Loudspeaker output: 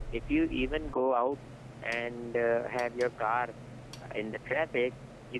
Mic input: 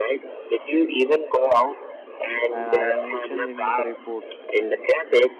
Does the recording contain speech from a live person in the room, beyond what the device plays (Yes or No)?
Yes